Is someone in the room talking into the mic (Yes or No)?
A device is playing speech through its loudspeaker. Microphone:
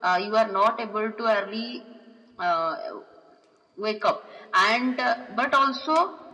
No